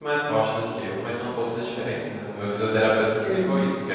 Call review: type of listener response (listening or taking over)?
listening